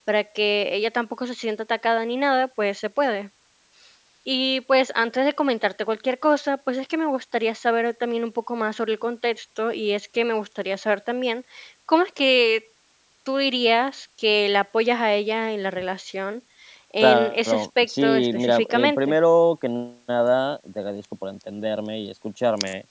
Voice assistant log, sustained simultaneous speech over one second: present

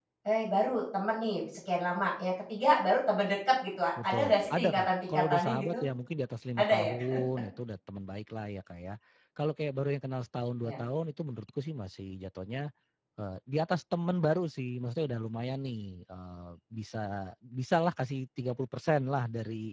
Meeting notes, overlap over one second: present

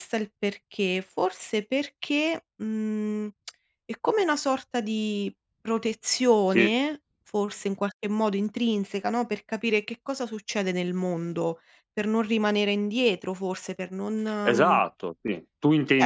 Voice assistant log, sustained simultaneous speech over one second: none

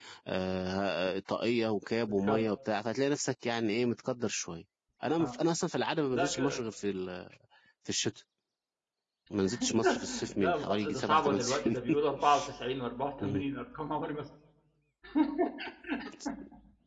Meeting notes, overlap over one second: present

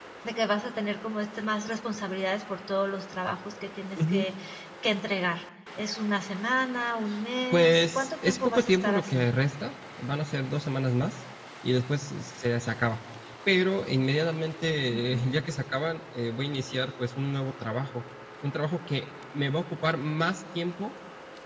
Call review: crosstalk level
present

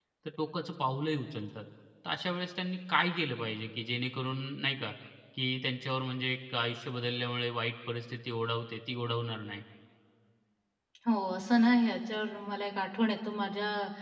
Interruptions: none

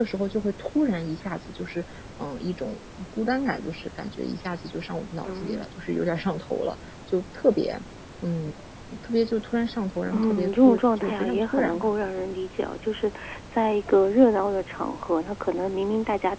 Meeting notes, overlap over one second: present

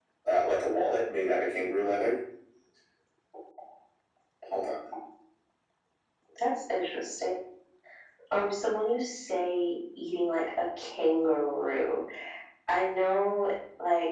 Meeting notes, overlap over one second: none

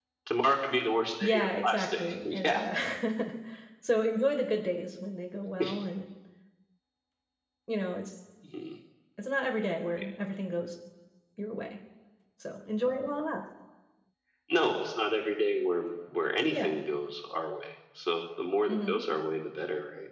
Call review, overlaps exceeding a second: present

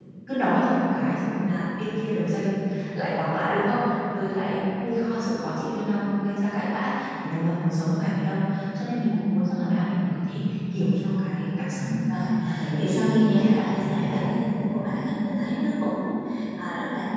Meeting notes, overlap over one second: present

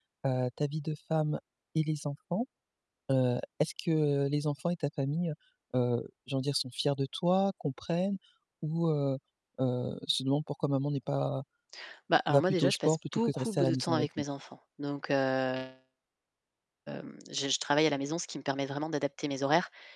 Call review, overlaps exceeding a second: present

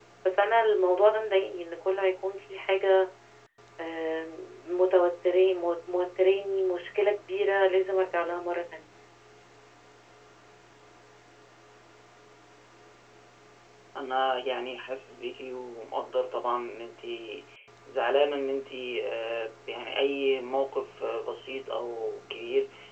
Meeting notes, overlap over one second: none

